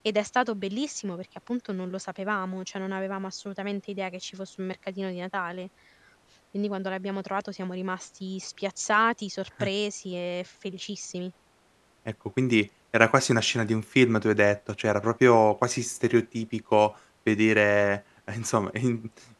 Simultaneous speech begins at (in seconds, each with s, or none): none